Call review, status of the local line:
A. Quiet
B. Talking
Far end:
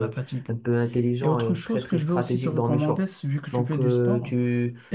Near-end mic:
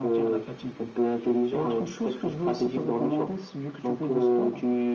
A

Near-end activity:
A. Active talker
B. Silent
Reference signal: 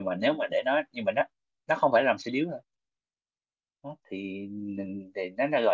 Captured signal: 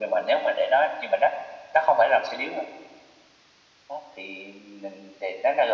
B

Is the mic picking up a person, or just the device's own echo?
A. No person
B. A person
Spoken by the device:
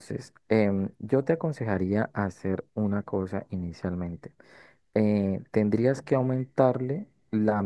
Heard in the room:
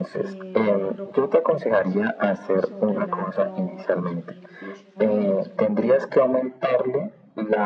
B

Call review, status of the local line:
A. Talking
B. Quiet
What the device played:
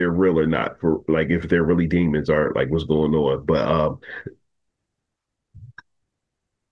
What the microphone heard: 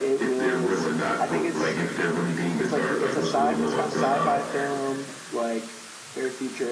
A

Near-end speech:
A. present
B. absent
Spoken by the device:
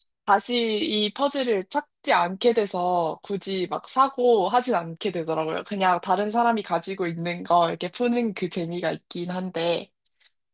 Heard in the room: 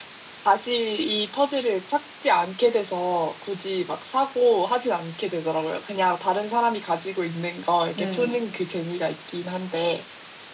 A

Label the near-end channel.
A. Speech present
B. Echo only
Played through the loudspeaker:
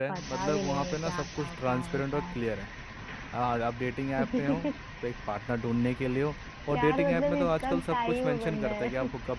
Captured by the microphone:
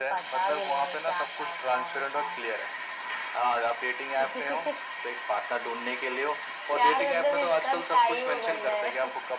B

